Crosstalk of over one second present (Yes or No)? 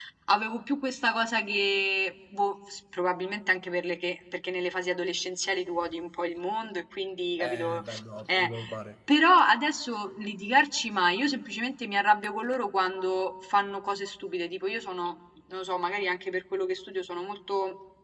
No